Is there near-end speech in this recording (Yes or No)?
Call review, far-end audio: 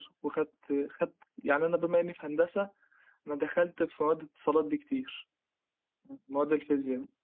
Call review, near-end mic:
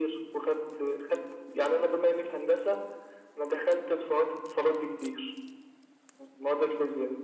No